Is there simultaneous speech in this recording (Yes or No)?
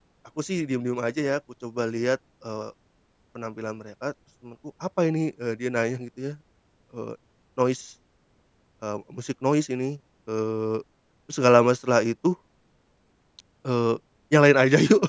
No